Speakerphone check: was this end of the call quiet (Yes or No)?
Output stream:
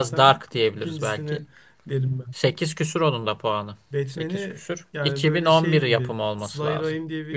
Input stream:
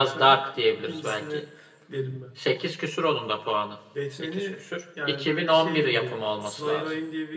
Yes